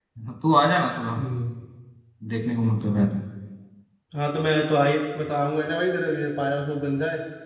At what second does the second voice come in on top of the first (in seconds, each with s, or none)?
none